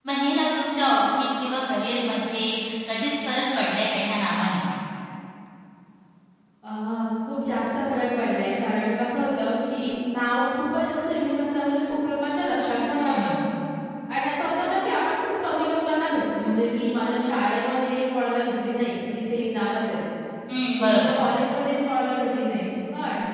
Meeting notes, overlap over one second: none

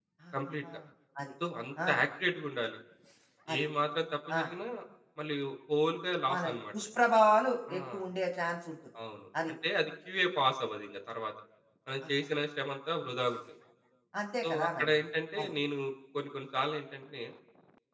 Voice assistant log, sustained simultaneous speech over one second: none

